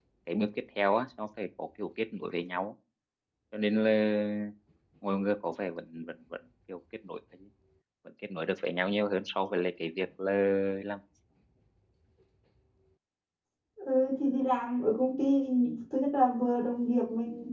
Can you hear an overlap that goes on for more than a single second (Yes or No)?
No